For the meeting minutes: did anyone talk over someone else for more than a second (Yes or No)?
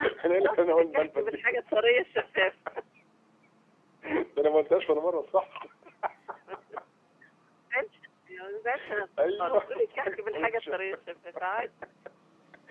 Yes